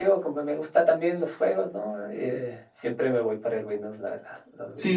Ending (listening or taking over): taking over